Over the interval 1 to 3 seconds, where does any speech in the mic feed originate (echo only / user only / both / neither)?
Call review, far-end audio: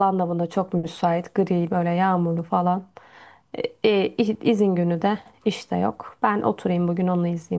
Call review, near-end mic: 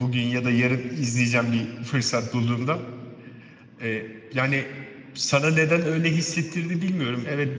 user only